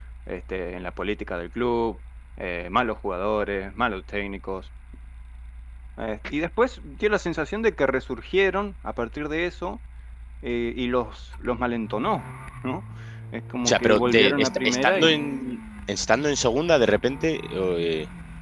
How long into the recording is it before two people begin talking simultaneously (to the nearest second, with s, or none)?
14 s